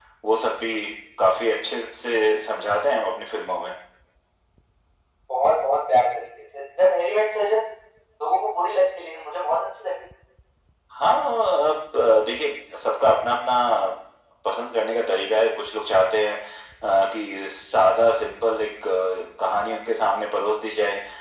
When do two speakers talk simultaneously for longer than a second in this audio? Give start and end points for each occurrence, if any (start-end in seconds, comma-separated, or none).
none